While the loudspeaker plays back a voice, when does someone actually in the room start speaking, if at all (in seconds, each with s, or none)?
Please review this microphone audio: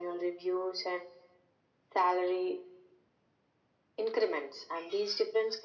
none